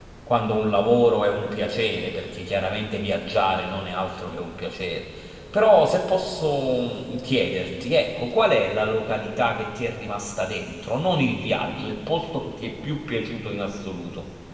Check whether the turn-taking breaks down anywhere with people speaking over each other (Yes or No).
No